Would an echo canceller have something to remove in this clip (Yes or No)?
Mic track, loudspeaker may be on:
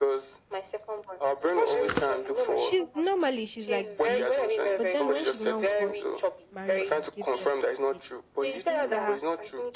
Yes